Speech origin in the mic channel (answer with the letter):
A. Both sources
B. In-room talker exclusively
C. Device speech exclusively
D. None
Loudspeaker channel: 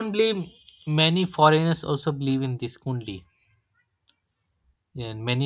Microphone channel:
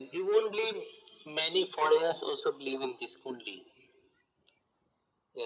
C